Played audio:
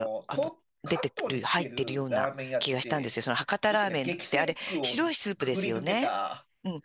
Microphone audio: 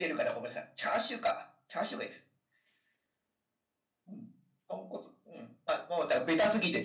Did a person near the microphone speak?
Yes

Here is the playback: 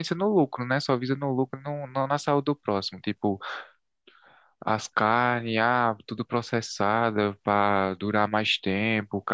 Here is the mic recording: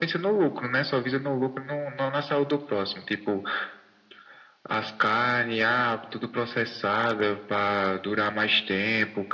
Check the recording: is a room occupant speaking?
No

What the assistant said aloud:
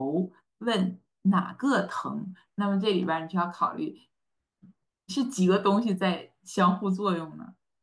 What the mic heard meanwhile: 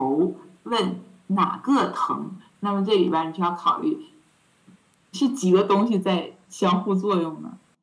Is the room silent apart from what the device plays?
Yes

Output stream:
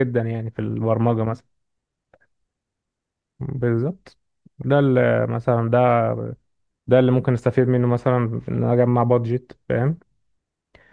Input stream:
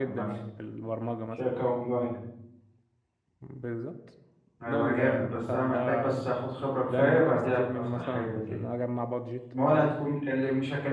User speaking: Yes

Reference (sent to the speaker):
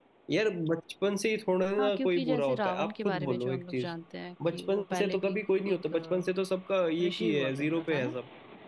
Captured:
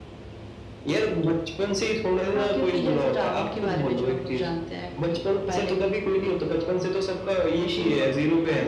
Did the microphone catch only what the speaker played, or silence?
Yes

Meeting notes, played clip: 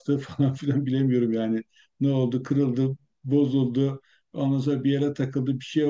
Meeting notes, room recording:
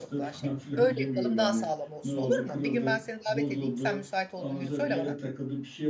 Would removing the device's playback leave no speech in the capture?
No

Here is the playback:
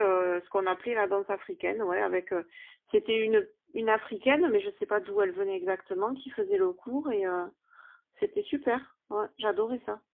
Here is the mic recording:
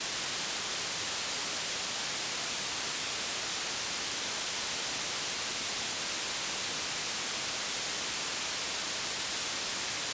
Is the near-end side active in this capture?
No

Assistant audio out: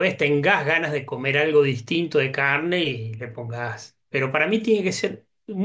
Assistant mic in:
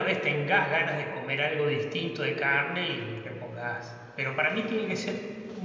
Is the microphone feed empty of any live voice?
Yes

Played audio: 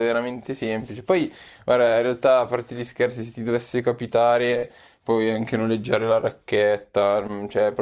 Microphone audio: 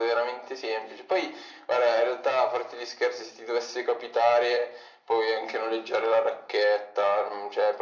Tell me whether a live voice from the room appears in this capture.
No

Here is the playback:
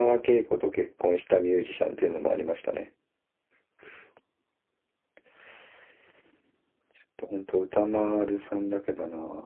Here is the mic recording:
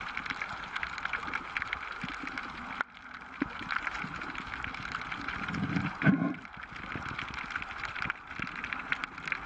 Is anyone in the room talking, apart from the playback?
No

